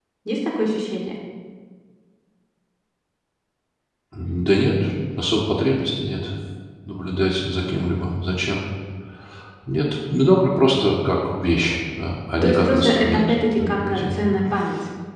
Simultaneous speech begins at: 12.4 s

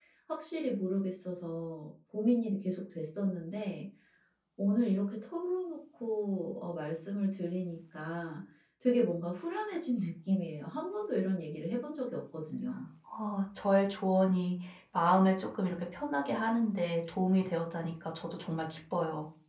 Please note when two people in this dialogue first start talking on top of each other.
none

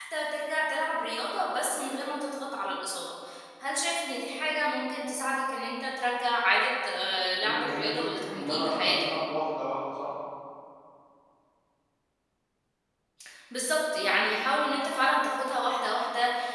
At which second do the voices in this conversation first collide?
7.4 s

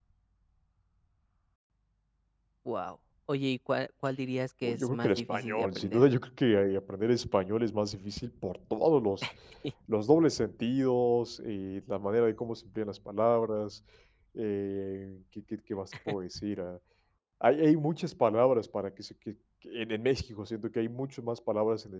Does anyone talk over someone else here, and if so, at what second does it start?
4.6 s

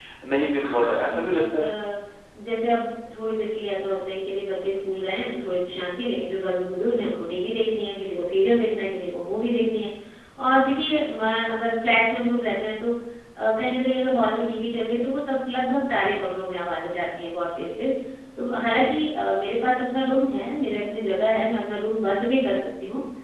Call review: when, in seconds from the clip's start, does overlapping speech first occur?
0.5 s

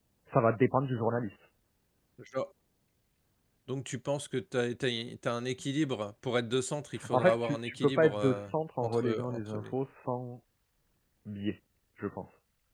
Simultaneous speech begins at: 7.0 s

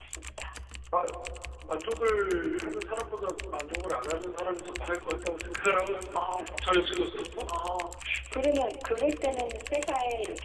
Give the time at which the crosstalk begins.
none

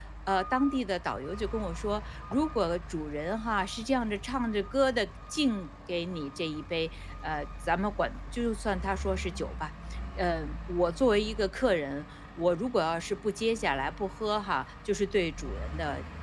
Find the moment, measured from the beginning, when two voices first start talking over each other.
none

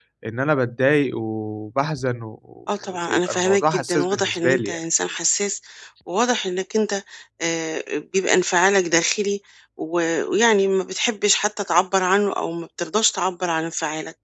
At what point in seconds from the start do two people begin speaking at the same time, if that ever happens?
2.9 s

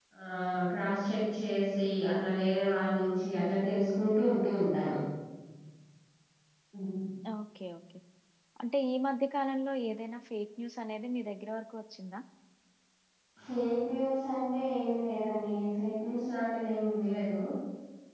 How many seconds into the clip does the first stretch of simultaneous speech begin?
none

